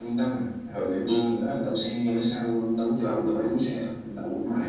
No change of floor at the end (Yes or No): Yes